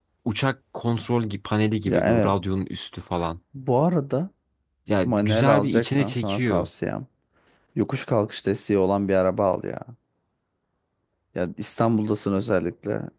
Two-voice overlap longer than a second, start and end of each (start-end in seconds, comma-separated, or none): 5.0-6.7